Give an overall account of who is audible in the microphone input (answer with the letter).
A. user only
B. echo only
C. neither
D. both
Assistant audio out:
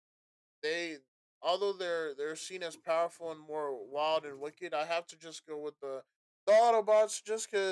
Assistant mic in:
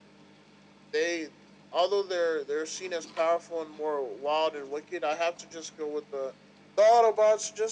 B